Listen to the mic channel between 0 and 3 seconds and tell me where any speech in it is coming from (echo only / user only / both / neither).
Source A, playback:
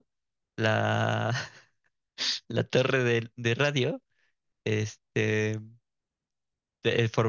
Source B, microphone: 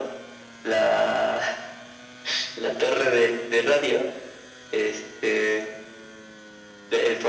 echo only